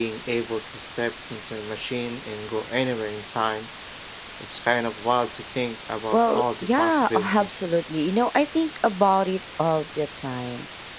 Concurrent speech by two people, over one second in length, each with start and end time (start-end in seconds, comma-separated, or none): 6.1-7.6